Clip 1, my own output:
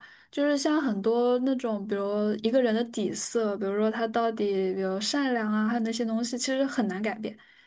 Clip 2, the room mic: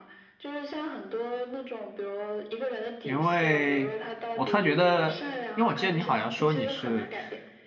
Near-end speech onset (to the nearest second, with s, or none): 3 s